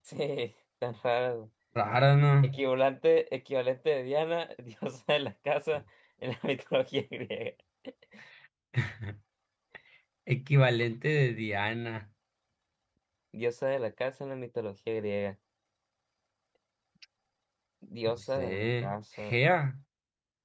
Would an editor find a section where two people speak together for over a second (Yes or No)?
Yes